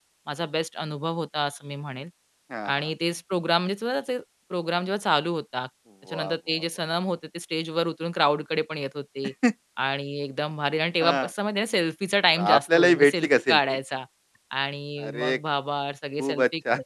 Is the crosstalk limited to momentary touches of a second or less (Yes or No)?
No